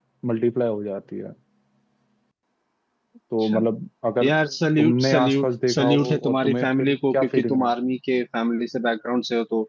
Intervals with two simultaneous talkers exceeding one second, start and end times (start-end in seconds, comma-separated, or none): 4.8-7.7